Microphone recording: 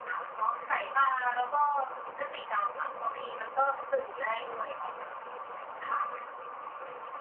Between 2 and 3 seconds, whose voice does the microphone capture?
echo only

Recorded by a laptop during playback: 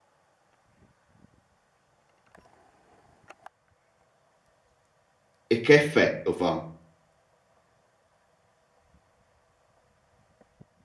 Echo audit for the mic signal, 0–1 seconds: neither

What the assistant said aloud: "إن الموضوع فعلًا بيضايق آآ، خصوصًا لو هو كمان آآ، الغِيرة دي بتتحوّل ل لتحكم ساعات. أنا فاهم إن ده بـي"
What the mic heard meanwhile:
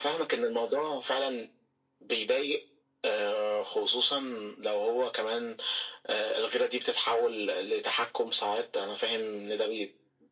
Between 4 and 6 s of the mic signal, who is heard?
echo only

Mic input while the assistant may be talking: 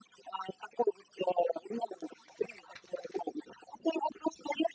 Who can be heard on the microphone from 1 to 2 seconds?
echo only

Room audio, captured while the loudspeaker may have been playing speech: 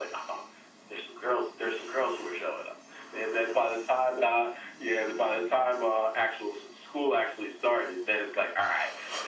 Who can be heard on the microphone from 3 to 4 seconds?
echo only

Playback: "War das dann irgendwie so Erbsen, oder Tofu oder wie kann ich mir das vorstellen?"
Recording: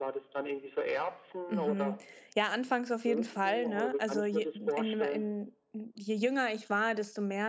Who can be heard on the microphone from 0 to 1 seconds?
echo only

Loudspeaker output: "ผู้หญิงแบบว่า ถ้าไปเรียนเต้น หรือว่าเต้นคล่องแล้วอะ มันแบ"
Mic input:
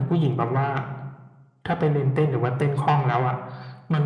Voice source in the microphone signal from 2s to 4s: echo only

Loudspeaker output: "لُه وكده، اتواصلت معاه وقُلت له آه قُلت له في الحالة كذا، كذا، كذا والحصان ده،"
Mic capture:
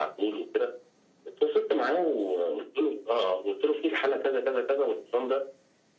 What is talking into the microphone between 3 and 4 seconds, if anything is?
echo only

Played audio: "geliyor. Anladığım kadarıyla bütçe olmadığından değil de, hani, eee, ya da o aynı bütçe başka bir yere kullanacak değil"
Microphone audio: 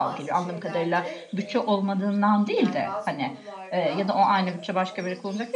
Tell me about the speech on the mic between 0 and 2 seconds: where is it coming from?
both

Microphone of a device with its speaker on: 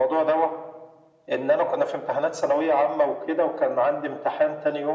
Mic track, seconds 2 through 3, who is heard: echo only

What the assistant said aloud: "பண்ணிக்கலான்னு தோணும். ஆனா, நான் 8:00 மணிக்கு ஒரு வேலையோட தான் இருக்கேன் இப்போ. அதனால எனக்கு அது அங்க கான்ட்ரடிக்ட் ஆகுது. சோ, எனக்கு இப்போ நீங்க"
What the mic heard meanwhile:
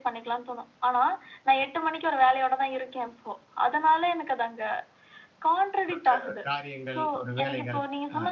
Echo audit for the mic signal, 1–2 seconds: echo only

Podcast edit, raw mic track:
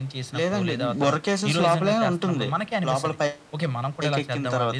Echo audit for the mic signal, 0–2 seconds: echo only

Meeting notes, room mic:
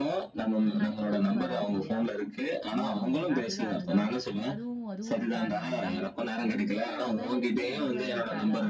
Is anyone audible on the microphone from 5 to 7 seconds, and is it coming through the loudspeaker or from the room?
both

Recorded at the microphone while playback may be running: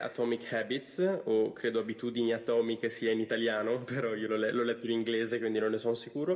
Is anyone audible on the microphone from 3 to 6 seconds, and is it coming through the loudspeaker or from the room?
echo only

